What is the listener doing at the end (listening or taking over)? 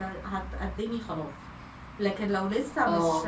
listening